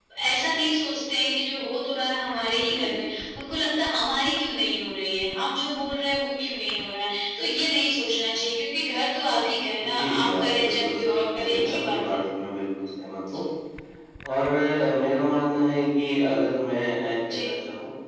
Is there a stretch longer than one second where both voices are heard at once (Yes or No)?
Yes